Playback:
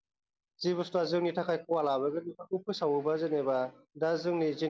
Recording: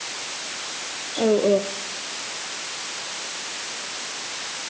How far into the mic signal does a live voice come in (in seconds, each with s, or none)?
1.2 s